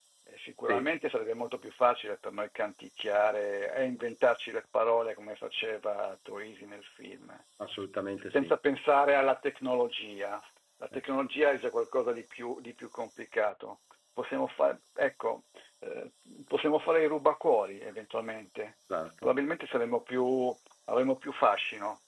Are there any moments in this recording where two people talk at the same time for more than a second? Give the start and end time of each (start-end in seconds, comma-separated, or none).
none